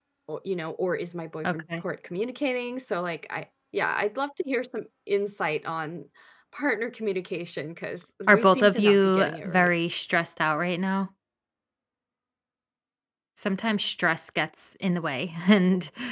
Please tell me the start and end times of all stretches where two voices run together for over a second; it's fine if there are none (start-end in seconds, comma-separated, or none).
8.3-9.7